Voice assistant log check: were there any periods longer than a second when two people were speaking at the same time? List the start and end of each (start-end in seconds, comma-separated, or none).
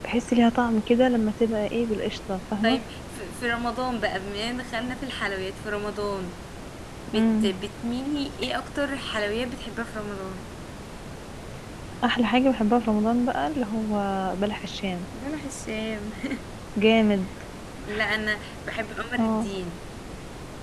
none